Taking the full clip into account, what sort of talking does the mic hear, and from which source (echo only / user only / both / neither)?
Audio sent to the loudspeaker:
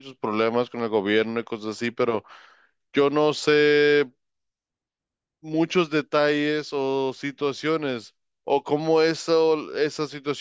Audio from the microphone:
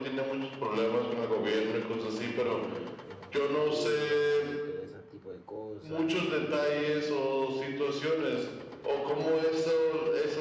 both